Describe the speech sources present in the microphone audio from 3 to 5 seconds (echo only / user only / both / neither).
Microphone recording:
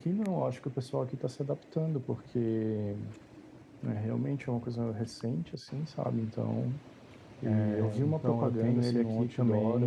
echo only